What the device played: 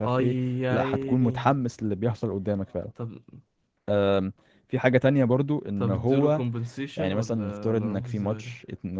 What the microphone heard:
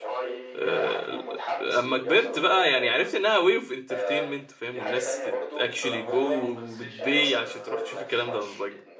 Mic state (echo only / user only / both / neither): both